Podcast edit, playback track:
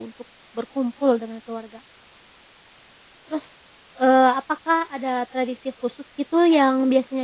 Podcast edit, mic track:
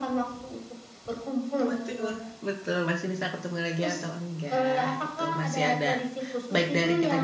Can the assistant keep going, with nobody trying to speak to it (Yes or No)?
No